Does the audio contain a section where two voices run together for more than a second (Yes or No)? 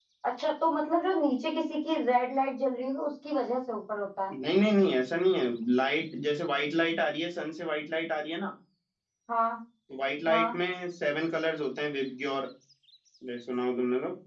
No